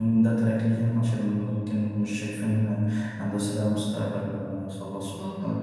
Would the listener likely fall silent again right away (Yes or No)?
No